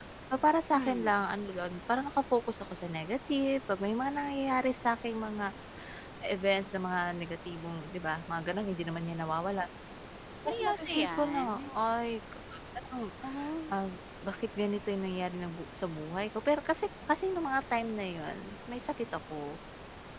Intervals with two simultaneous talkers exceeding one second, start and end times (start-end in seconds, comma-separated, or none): 10.4-11.7